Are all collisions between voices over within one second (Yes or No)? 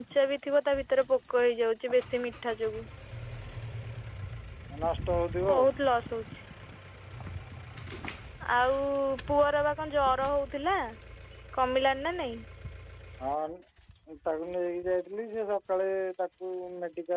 Yes